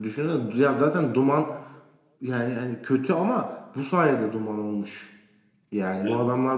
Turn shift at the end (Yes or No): No